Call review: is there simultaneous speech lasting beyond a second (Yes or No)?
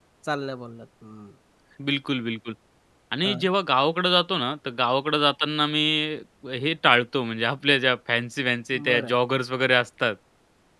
No